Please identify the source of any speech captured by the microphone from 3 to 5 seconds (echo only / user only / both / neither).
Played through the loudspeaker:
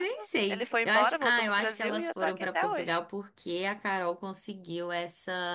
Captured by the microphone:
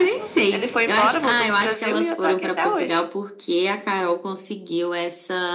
echo only